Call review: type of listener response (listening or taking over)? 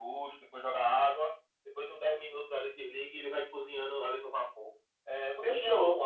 listening